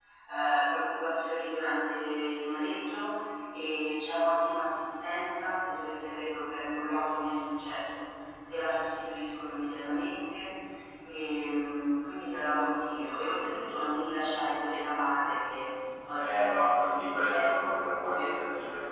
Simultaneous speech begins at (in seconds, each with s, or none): 16.2 s